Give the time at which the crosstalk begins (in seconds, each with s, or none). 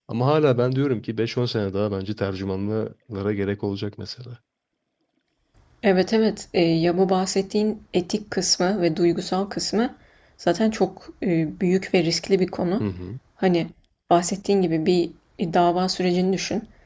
none